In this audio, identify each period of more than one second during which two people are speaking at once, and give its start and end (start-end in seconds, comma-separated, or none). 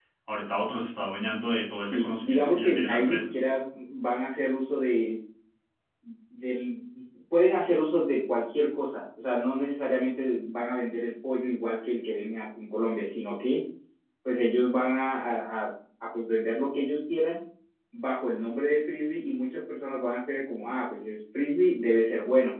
1.8-3.2